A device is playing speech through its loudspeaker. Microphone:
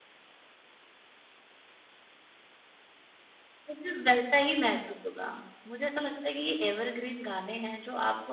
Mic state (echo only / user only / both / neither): user only